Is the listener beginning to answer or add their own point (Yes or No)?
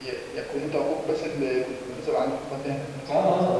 Yes